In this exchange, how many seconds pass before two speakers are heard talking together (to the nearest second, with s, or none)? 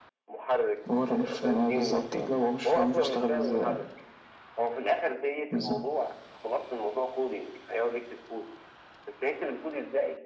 1 s